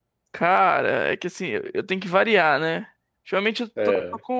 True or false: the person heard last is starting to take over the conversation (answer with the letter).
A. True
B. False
B